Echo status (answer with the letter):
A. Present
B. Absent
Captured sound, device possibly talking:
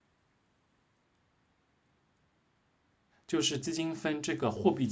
B